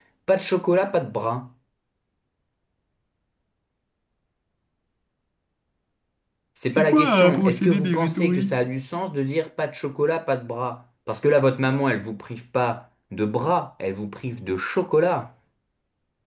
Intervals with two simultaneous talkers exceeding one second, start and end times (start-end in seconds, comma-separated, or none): 6.7-8.6